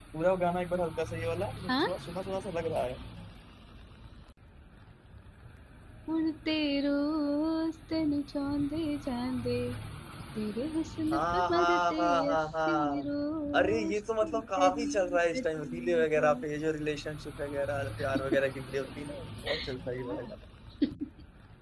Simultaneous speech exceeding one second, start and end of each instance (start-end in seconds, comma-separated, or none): 11.1-13.1, 13.6-16.3